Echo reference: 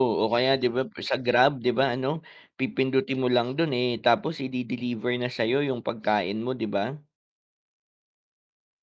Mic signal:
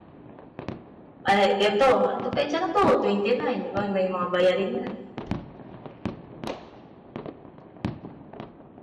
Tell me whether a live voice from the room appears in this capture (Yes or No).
Yes